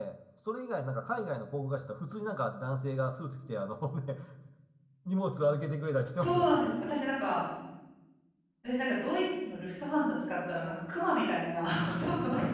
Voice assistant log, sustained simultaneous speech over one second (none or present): none